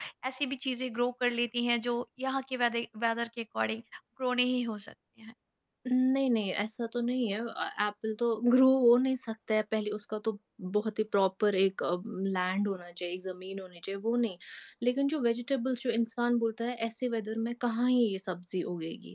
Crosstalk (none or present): none